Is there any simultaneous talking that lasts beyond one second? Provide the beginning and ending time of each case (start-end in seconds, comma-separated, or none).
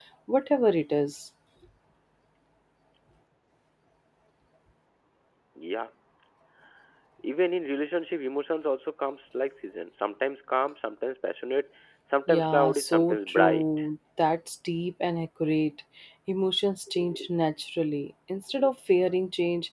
12.3-13.6